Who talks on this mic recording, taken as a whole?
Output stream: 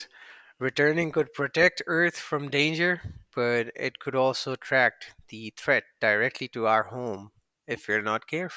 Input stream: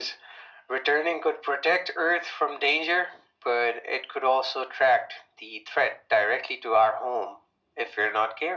echo only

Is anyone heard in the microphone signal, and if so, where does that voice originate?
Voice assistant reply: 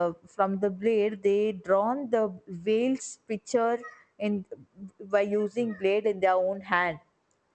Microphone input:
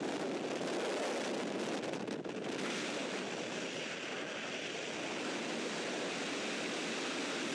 neither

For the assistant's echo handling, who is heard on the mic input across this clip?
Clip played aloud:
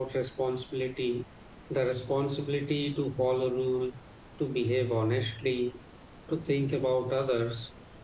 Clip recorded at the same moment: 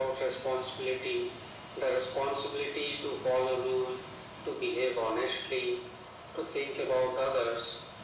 echo only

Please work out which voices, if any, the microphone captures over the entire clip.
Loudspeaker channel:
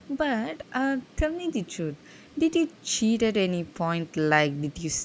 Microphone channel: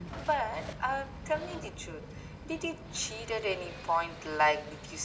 echo only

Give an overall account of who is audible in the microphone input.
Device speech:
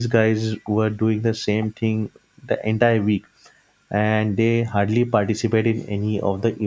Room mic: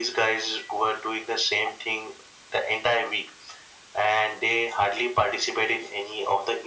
echo only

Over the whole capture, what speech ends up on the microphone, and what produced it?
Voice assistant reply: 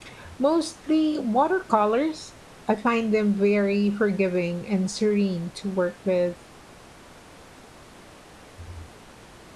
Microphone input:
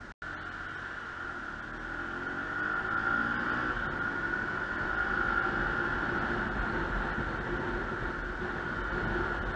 neither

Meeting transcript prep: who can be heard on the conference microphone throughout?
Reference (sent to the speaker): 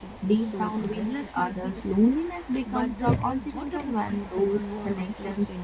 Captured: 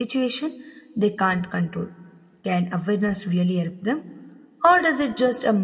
user only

